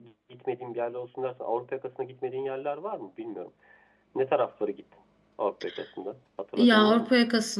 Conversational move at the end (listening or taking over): taking over